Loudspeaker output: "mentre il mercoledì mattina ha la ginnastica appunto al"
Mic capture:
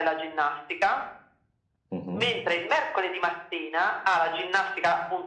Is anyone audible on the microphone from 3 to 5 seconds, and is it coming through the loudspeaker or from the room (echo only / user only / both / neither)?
echo only